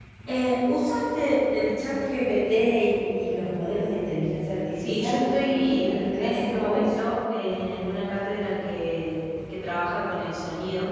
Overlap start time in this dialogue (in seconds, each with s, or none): 4.8 s